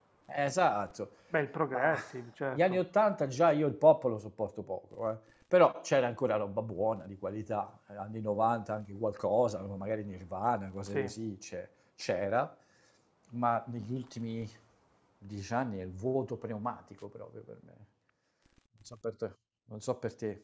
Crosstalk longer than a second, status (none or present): none